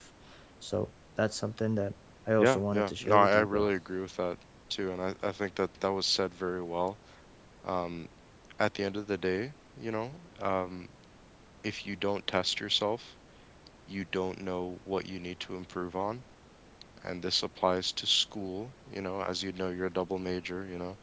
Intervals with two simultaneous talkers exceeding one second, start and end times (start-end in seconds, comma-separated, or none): 2.4-3.7